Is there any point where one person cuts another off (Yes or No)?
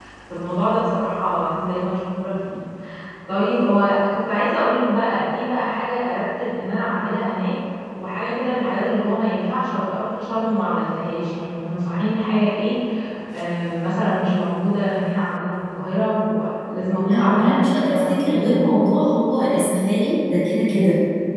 Yes